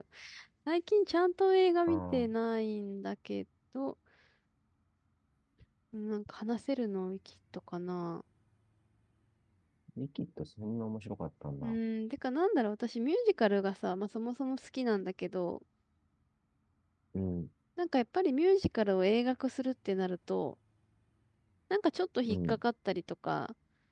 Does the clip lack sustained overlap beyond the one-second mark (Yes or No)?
Yes